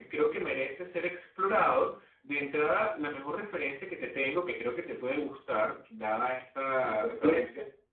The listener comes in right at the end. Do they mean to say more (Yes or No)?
No